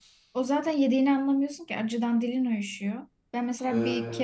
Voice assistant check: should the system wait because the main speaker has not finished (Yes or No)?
Yes